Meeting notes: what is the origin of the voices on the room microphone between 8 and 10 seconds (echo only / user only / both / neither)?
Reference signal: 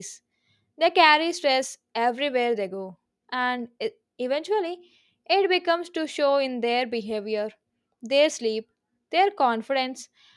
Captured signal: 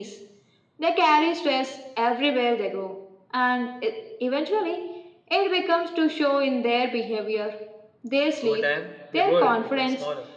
both